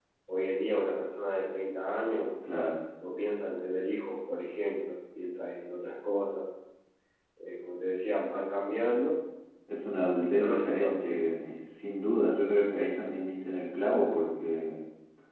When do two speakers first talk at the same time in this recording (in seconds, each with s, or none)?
9.8 s